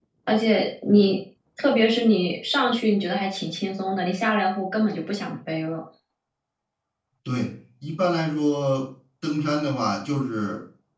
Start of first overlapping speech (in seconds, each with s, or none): none